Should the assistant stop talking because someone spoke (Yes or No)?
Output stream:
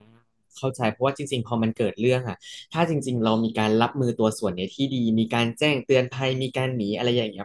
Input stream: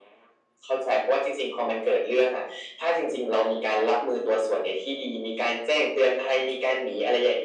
No